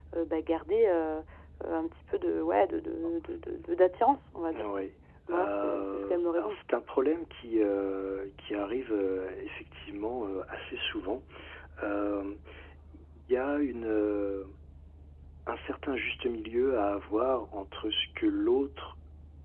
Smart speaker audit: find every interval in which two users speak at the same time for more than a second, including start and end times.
5.3-6.6

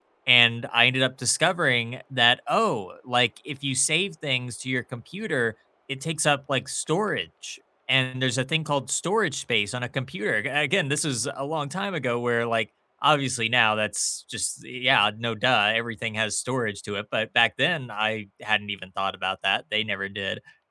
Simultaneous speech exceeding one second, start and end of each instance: none

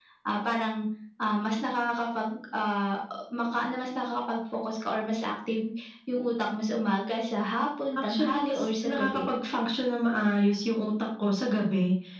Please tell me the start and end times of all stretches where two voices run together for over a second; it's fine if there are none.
8.0-9.2

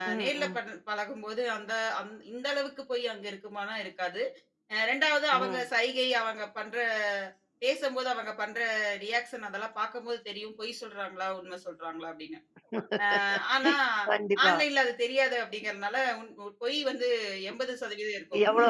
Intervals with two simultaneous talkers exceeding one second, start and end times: none

